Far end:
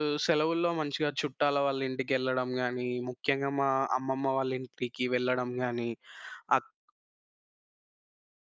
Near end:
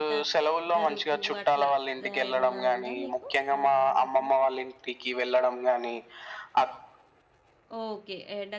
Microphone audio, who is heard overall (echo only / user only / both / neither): both